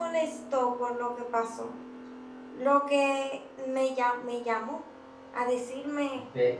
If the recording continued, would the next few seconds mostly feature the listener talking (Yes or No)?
Yes